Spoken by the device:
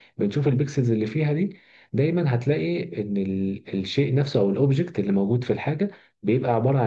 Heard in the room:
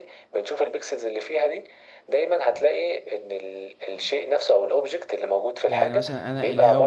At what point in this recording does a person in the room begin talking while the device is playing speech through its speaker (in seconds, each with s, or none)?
5.7 s